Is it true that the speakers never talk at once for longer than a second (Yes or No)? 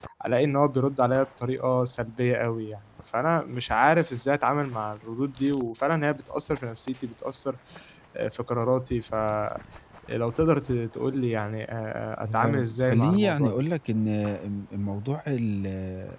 No